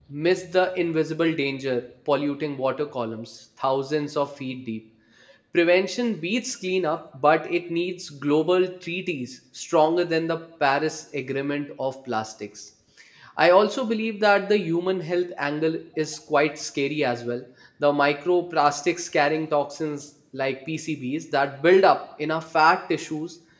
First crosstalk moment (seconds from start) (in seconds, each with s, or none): none